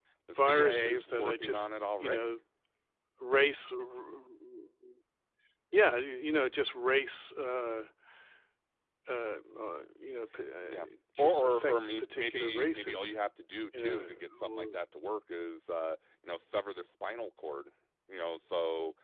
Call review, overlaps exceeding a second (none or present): present